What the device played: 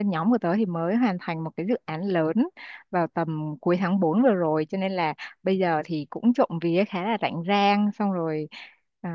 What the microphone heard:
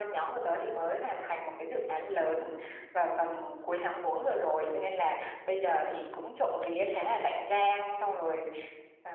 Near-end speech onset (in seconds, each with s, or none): none